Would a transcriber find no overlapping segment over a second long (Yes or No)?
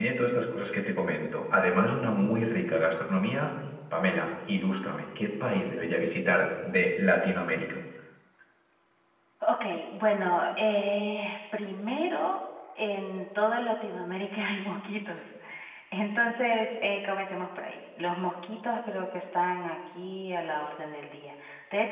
Yes